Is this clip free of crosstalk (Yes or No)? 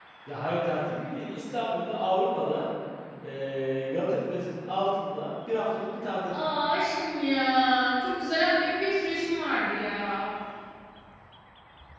Yes